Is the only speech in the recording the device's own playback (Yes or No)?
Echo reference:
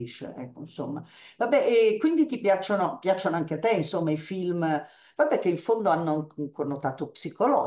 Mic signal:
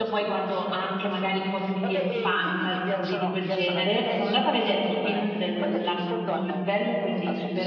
No